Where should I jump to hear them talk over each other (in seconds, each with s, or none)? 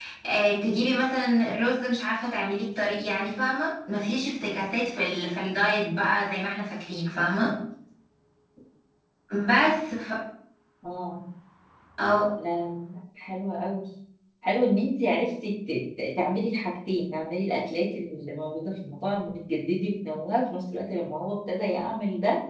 none